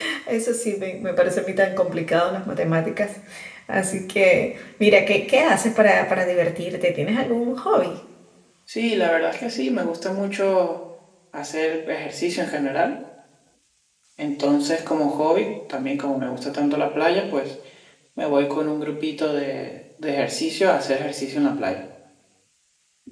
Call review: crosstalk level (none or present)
none